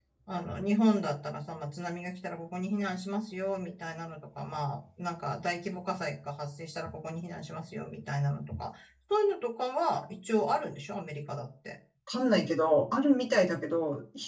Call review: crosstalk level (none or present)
none